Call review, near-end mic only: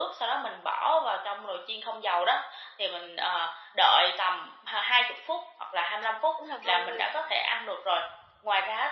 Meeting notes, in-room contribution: present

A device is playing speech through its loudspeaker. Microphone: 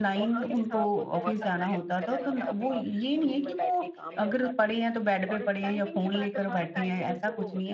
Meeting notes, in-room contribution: present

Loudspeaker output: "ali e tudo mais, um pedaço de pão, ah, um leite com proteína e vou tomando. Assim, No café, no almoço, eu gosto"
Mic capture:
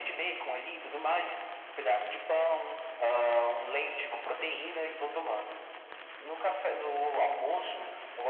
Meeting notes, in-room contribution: none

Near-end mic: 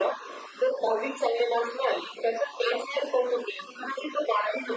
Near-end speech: none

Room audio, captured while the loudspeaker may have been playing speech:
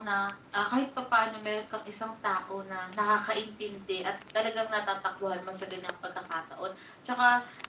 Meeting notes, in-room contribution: none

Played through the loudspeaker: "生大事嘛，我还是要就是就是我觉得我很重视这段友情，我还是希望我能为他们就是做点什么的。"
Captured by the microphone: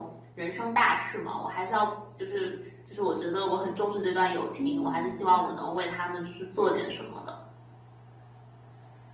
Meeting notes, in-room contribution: present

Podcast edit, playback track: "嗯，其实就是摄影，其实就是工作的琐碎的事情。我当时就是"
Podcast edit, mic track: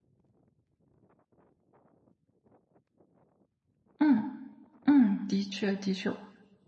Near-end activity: present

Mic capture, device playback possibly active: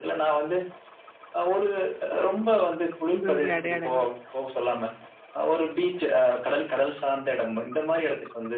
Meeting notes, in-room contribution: present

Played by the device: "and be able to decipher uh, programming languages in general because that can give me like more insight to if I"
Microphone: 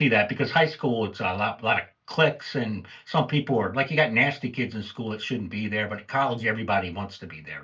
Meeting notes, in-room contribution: present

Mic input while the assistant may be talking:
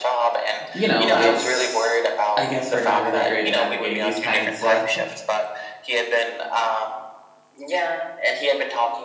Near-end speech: present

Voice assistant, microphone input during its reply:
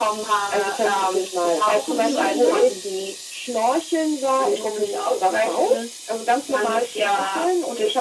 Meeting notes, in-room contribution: present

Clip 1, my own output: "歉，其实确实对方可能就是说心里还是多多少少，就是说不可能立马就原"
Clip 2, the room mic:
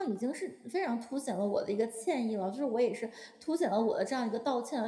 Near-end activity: present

